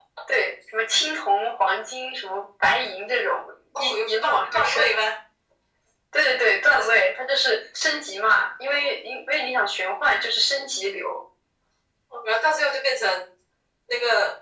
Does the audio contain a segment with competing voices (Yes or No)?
Yes